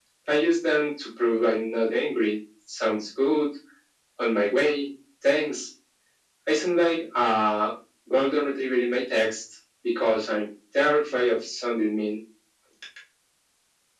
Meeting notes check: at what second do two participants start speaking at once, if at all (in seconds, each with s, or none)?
none